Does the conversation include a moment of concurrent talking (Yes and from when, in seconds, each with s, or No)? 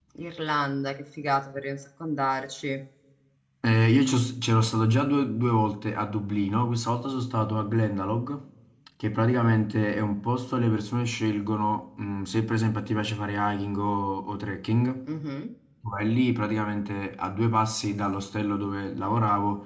No